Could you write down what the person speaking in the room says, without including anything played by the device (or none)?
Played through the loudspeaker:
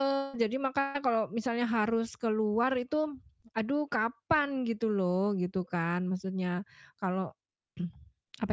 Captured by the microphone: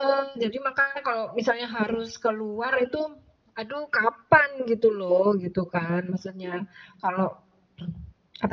none